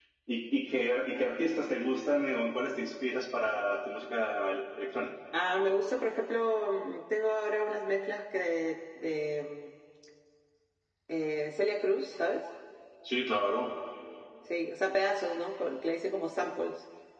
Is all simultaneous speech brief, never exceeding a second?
Yes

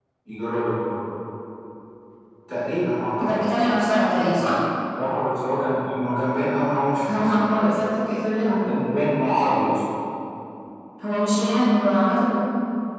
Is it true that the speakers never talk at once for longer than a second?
Yes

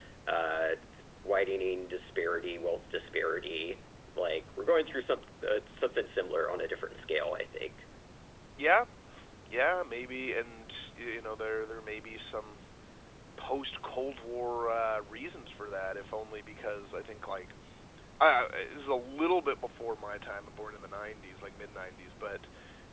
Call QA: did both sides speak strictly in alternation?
Yes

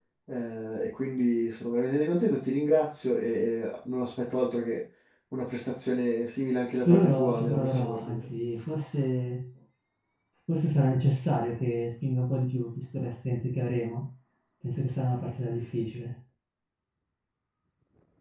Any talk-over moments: Yes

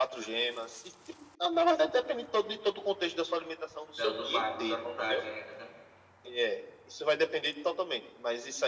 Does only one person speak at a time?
No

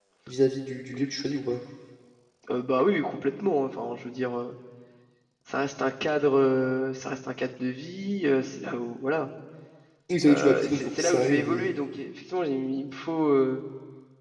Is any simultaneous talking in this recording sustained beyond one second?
Yes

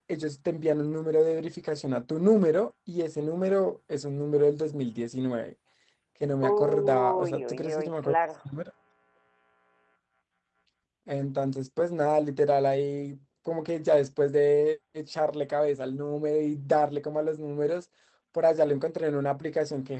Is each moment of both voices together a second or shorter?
No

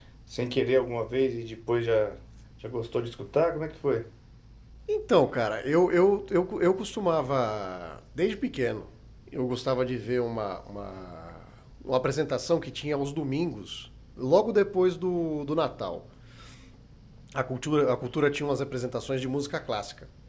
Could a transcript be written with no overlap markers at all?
Yes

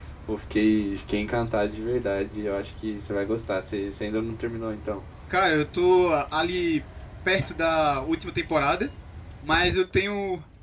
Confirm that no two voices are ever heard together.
Yes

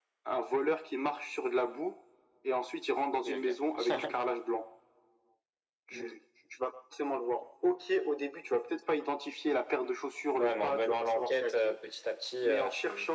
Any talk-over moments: Yes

